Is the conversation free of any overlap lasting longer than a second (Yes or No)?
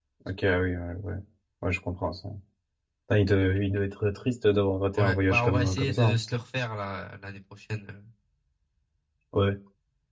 No